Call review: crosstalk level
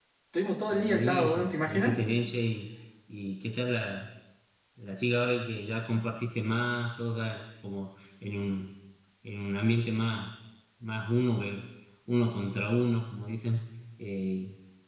present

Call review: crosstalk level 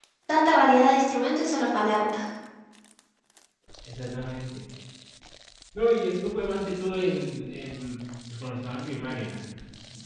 none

